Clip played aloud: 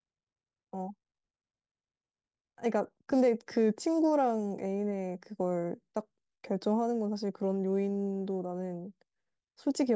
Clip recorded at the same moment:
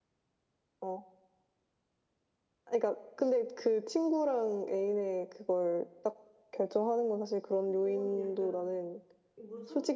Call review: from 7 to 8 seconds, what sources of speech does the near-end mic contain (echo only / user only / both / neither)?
both